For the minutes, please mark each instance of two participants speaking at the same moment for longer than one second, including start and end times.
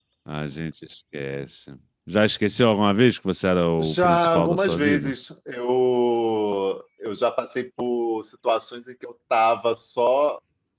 3.8-5.1

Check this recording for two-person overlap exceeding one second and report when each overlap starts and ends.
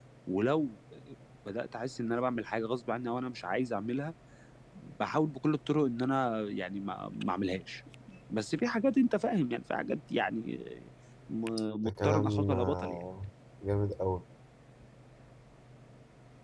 11.8-13.0

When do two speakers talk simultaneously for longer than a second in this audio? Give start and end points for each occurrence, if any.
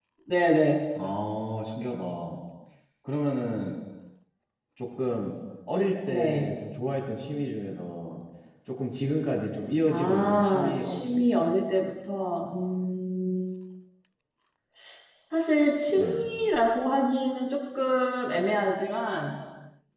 9.9-11.5

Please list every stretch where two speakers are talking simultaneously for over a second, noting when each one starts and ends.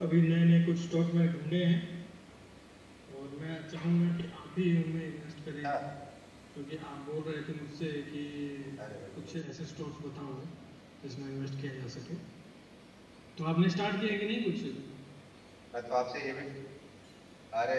none

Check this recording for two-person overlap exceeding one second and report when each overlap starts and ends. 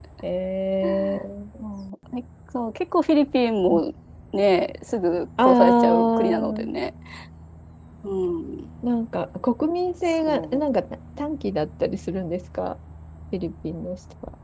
5.4-6.7

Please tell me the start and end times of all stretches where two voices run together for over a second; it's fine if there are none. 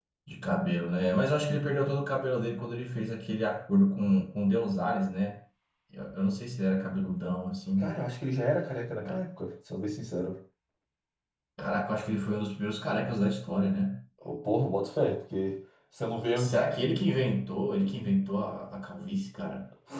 none

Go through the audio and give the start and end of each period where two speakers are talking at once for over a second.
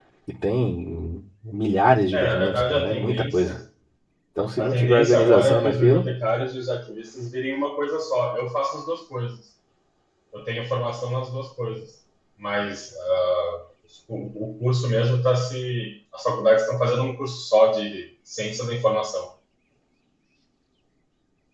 2.1-3.5, 4.6-6.0

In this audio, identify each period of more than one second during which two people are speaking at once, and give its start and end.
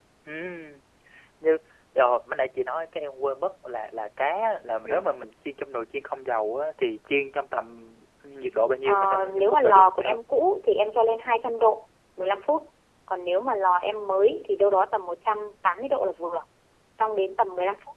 8.8-10.1

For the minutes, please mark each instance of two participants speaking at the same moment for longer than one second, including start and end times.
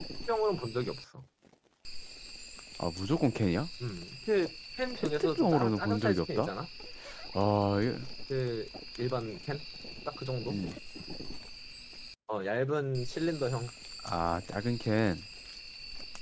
4.9-6.5

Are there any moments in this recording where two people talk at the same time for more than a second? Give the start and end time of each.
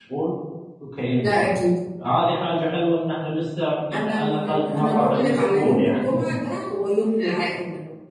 3.9-6.2

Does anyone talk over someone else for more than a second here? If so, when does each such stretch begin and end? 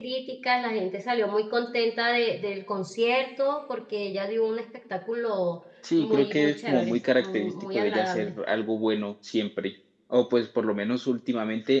6.0-8.3

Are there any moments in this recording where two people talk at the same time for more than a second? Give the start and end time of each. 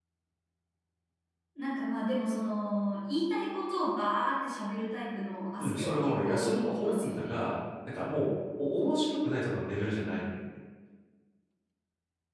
5.6-7.3

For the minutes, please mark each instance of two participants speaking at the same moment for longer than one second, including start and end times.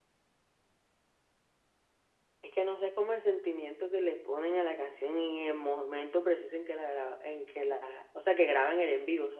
none

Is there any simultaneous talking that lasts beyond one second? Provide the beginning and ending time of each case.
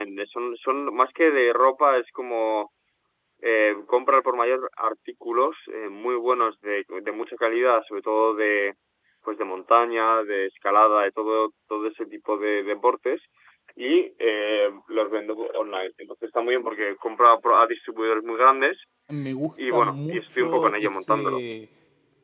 19.7-21.4

